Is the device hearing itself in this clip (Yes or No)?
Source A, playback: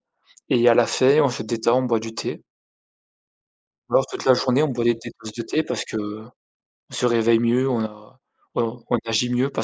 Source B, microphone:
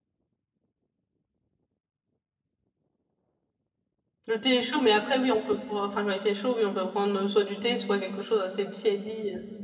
No